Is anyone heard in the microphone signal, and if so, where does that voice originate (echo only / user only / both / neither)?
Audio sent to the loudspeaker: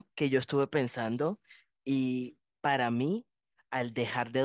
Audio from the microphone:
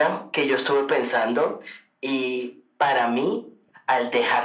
echo only